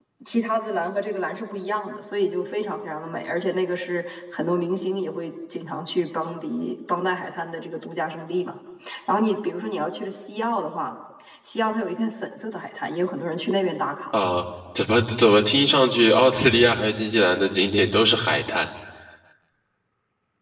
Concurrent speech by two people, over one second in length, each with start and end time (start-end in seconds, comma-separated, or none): none